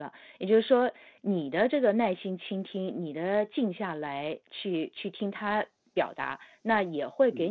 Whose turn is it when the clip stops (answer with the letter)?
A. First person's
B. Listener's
A